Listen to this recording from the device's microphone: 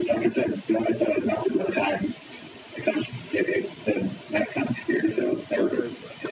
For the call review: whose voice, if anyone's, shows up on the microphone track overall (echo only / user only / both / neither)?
both